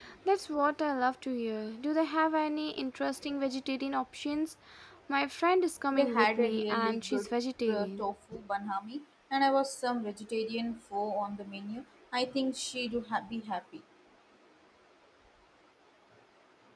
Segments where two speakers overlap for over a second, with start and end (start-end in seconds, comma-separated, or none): 5.9-7.3